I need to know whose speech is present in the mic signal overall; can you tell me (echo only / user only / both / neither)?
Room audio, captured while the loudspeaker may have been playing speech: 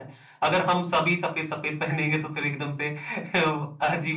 user only